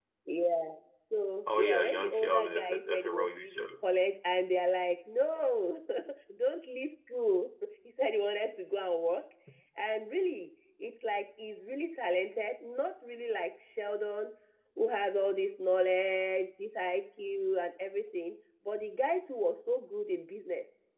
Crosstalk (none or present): present